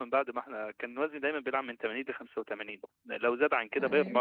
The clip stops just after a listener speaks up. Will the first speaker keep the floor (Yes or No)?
Yes